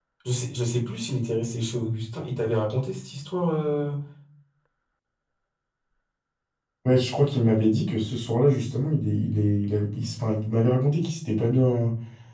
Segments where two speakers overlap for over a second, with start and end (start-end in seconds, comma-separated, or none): none